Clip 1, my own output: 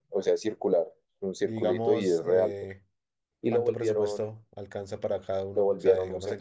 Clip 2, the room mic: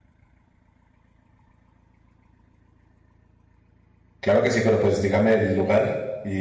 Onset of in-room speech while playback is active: 4.2 s

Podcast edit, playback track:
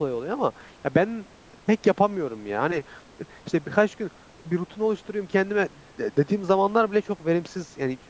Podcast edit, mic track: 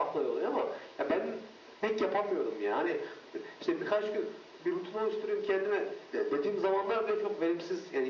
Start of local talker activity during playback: none

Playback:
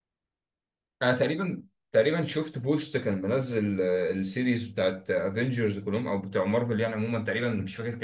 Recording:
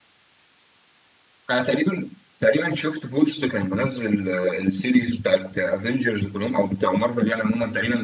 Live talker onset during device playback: none

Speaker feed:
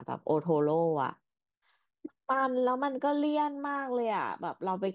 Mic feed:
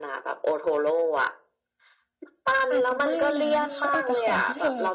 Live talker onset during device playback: 2.7 s

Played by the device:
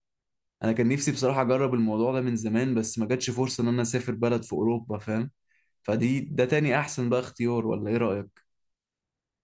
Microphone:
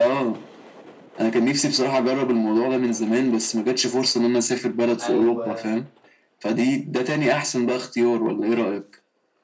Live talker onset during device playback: 5.0 s

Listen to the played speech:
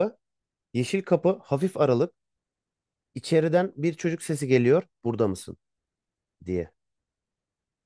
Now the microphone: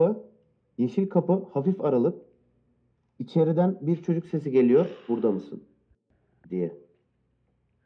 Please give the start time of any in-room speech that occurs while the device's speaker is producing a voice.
none

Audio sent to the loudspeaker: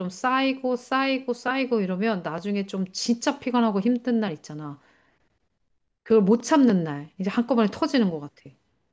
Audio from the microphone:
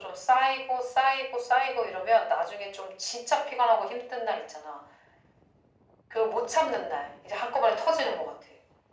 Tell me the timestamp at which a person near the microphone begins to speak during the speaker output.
none

